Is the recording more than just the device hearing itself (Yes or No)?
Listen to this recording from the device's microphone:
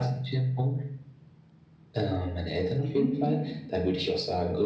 Yes